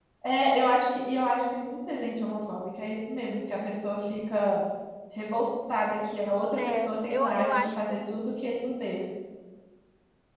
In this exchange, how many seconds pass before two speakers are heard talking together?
6.6 s

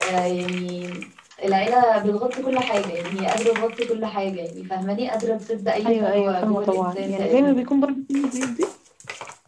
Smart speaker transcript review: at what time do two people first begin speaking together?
5.8 s

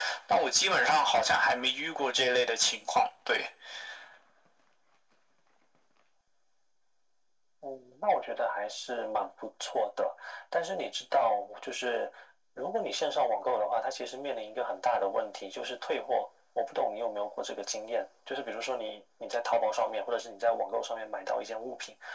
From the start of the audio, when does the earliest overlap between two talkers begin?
none

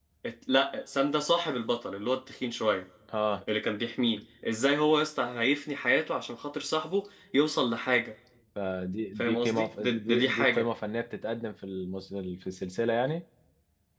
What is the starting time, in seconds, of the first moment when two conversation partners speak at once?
9.2 s

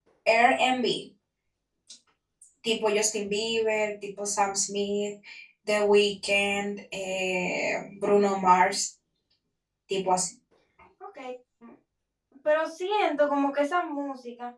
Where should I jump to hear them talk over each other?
none

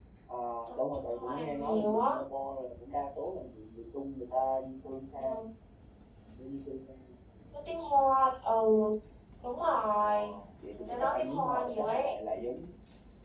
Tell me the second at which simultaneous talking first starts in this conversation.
0.8 s

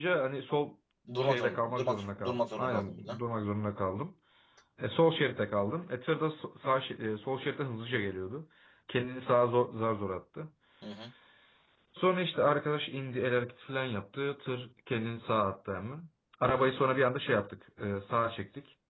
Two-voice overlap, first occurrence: 1.2 s

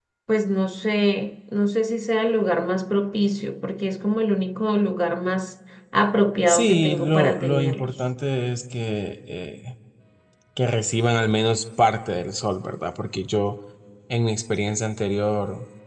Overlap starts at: 6.5 s

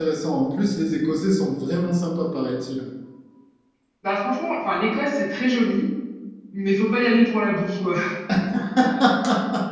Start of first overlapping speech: none

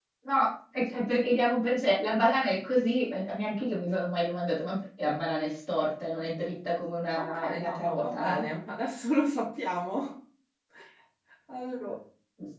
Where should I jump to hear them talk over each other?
7.2 s

